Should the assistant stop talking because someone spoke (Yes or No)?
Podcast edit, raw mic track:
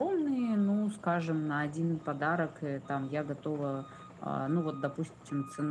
No